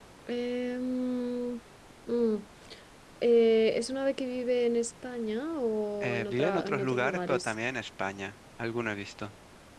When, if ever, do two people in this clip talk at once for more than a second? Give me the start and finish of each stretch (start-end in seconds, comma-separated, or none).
6.0-7.5